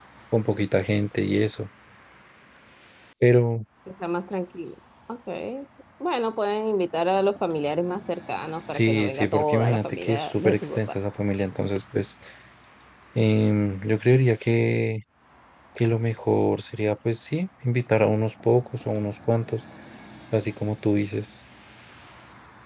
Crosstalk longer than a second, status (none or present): present